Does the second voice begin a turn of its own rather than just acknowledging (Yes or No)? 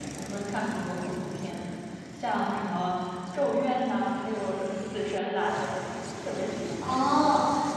Yes